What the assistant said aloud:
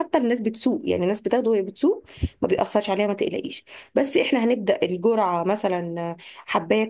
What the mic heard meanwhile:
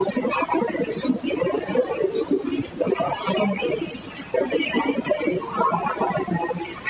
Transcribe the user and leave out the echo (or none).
none